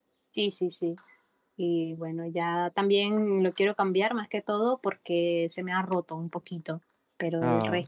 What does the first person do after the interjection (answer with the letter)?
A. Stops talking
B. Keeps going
B